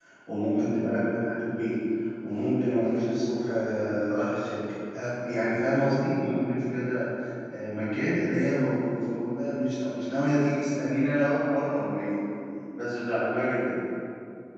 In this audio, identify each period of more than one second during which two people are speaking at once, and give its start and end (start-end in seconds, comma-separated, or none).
none